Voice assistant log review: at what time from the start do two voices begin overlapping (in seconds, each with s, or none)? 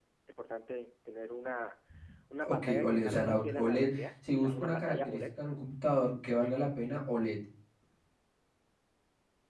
2.5 s